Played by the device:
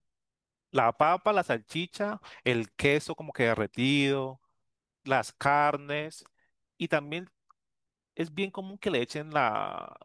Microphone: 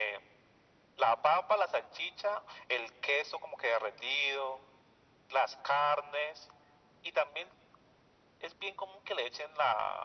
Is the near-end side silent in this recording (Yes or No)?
Yes